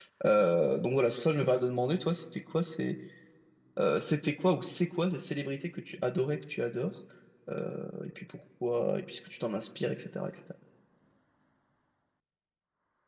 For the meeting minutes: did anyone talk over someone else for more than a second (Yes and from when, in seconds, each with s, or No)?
No